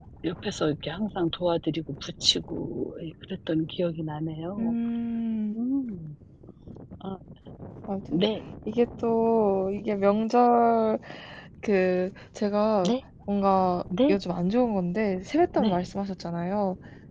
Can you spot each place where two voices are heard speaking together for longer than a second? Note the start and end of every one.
none

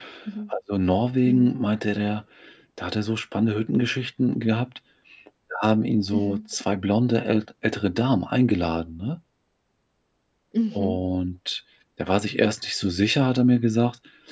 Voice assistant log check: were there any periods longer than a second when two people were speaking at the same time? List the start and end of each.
none

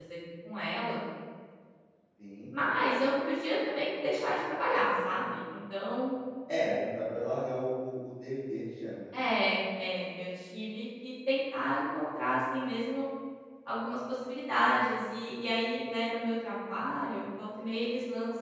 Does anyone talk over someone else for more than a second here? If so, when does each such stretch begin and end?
none

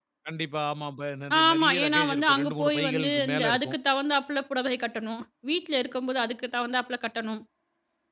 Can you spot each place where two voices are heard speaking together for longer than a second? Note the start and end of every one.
1.4-3.8

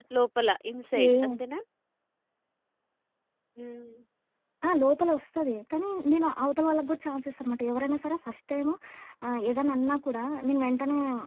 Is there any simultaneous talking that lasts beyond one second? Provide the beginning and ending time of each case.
none

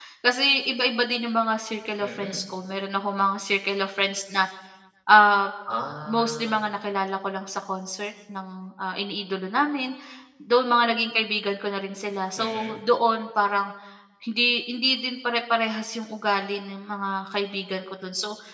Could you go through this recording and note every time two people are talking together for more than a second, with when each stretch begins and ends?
none

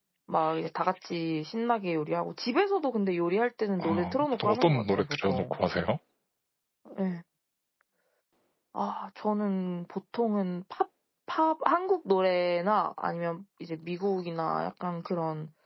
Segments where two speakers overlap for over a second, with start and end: 3.8-5.6

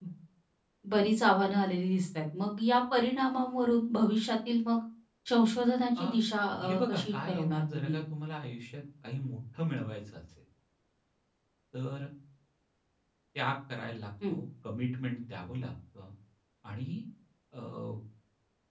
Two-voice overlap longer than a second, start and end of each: 6.6-8.0

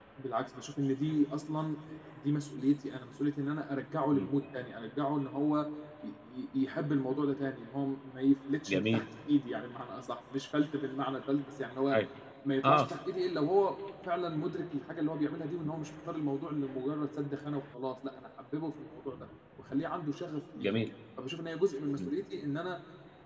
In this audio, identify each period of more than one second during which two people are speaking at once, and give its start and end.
none

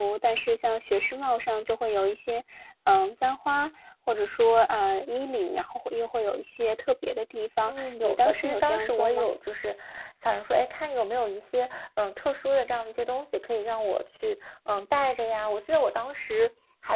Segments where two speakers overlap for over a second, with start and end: 7.7-9.3

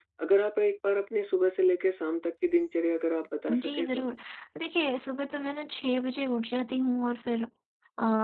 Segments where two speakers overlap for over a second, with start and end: none

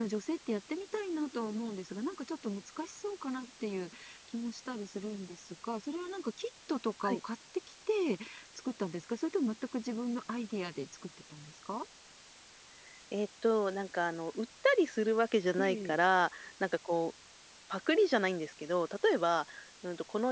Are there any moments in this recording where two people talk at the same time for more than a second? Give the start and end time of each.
none

